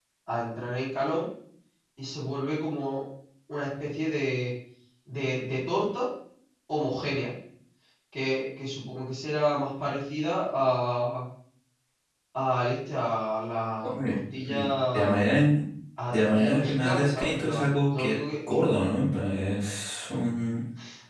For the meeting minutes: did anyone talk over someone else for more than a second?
Yes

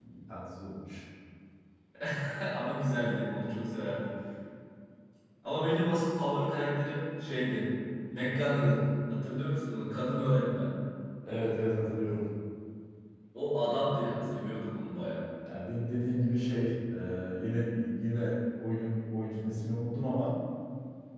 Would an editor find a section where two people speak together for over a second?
No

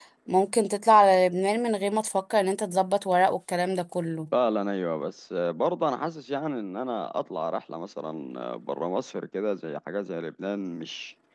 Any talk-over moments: No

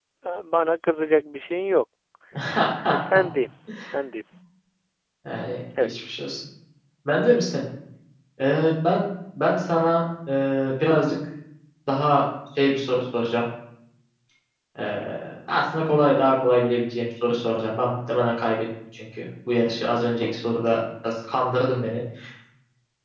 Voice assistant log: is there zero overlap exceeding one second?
Yes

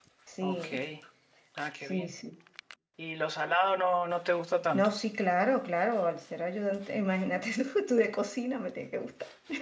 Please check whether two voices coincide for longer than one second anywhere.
No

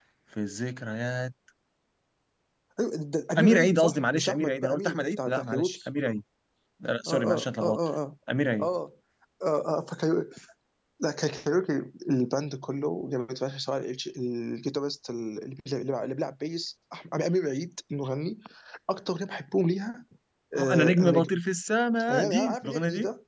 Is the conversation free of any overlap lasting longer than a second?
No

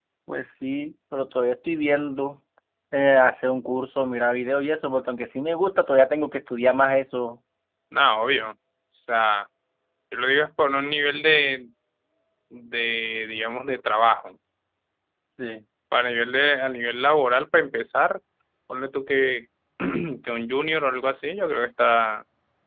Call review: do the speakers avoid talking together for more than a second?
Yes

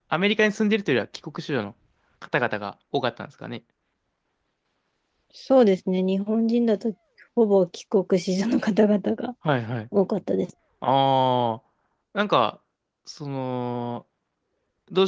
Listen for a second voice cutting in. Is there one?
No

